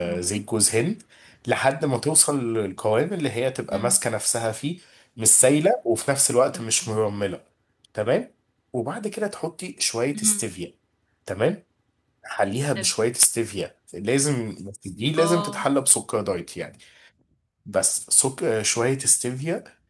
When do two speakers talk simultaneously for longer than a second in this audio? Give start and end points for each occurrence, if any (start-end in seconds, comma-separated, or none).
none